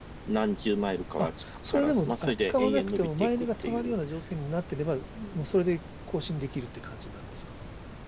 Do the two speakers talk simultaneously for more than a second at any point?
Yes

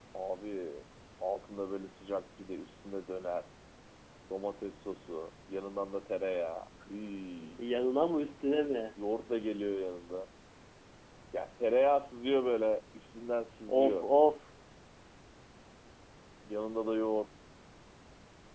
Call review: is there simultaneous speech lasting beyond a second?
No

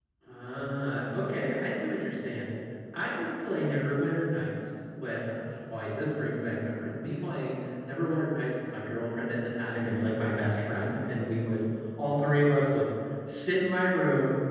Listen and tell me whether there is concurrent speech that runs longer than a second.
No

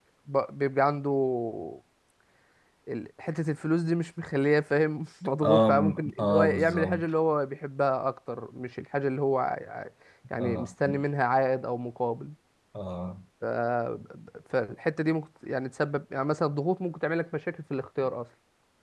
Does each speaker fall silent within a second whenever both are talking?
No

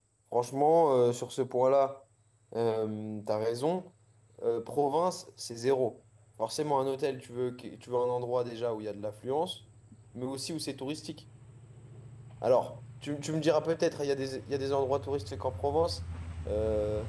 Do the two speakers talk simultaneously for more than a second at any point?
No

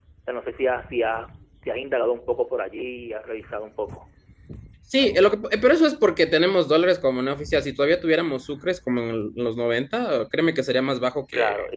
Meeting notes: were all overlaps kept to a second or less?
Yes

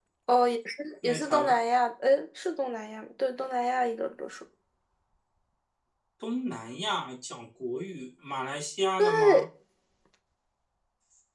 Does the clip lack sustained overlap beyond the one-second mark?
Yes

